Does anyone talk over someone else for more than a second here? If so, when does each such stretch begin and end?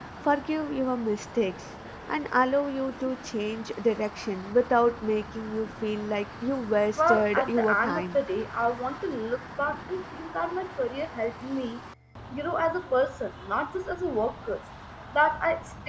7.0-8.2

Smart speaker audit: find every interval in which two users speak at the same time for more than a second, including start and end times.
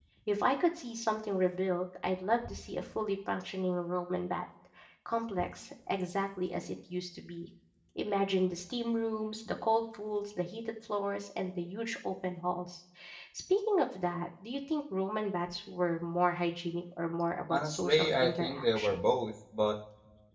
17.5-19.0

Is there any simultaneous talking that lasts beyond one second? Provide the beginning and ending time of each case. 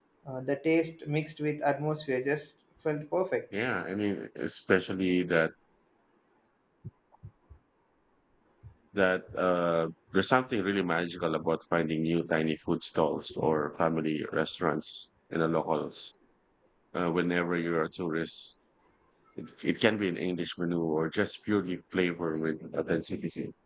none

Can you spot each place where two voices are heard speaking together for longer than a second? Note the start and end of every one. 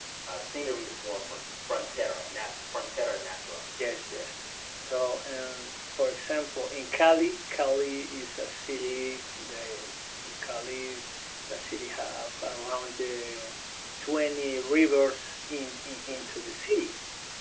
none

